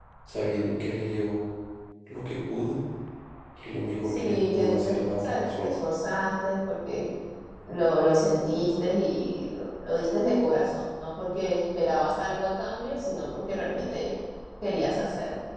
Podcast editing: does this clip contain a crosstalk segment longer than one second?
Yes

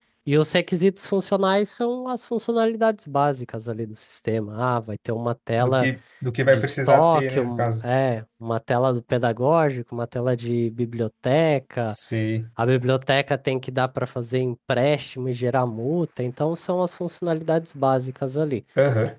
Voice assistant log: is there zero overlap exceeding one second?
No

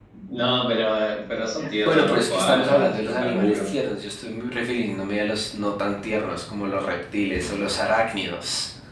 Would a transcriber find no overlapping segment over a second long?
No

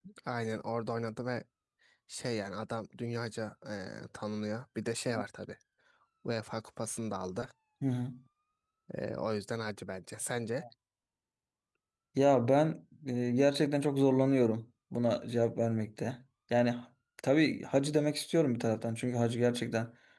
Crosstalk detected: No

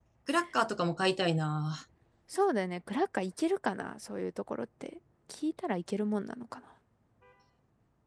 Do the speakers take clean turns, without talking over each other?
Yes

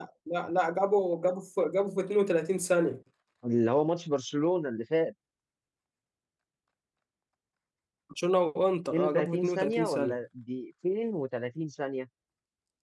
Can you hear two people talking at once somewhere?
Yes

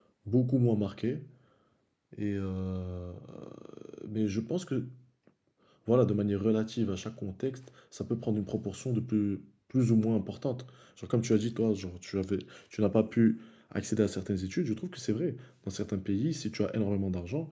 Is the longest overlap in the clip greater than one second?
No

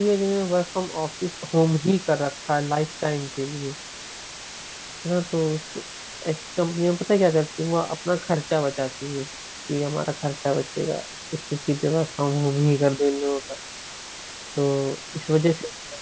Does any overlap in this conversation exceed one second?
No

